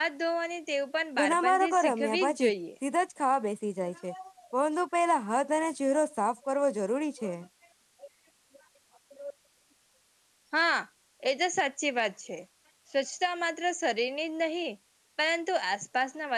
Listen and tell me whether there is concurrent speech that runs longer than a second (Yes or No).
Yes